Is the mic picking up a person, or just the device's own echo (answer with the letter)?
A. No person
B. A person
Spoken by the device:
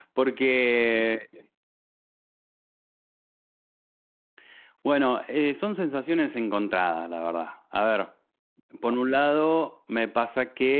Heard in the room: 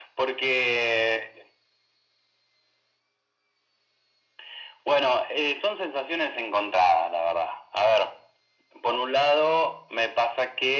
A